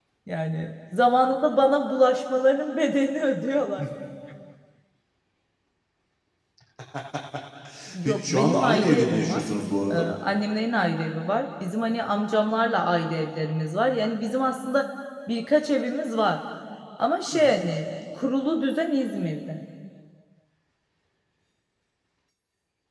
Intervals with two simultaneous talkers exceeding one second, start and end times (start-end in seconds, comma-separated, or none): 8.1-9.4